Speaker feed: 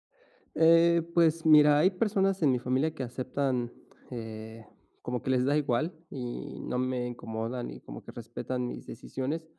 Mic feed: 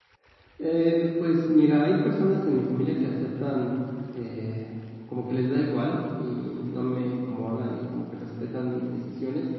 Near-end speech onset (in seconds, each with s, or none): none